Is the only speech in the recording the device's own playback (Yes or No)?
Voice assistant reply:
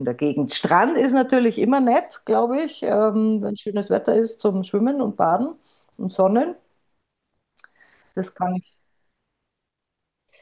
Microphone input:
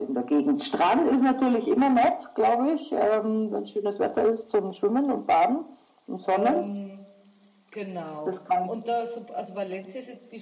No